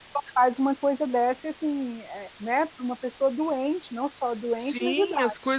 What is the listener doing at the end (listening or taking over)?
taking over